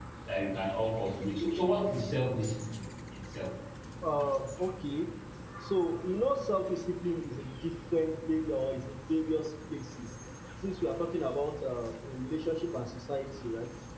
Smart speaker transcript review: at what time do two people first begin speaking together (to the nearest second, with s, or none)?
none